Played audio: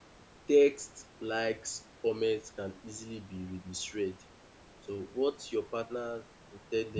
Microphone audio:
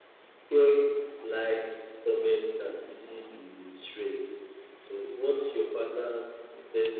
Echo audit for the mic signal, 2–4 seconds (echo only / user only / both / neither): echo only